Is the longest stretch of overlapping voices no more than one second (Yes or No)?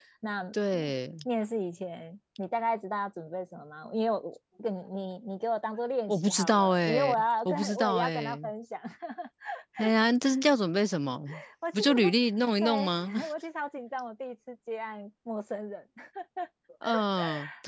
No